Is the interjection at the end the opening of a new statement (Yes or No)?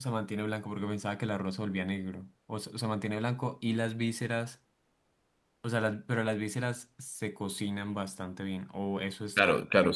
Yes